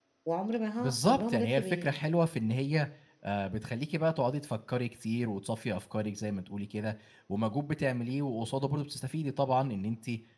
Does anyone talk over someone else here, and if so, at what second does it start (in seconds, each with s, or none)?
0.8 s